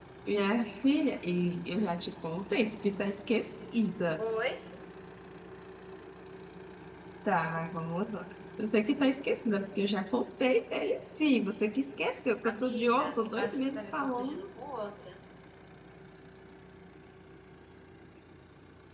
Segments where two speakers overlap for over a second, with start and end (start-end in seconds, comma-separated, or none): 12.4-14.4